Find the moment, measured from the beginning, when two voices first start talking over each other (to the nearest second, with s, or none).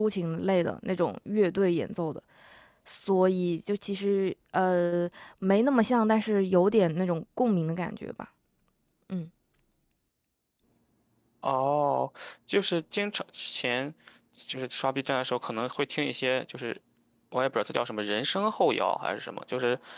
none